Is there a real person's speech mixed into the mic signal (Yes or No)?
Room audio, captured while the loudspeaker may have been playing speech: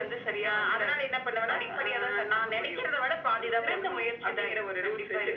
No